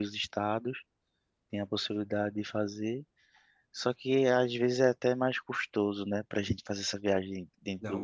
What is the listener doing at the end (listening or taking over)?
taking over